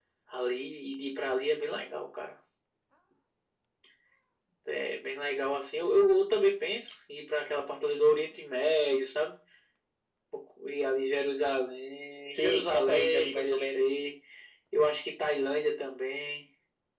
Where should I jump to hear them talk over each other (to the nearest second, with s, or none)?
12 s